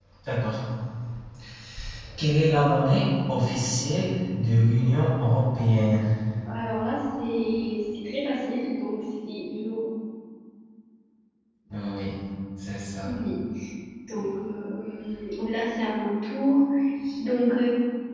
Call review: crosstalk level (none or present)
none